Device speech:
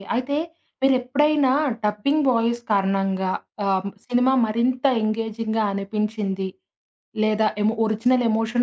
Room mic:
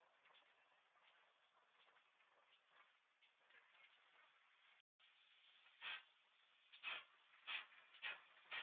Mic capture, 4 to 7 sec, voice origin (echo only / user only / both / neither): neither